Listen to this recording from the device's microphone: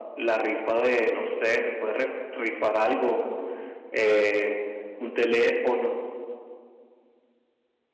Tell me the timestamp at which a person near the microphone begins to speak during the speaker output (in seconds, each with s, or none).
none